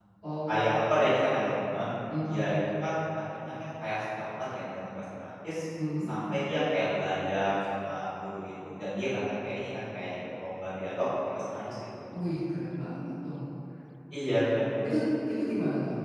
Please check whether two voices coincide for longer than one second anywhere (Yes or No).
No